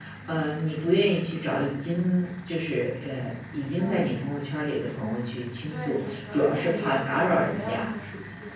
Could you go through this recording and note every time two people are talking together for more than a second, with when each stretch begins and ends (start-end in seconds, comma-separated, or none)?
5.7-7.9